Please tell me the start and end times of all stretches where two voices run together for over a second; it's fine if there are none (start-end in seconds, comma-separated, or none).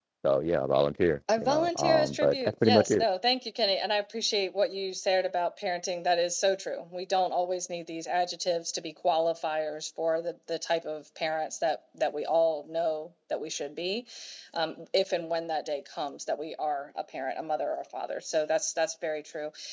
1.4-3.0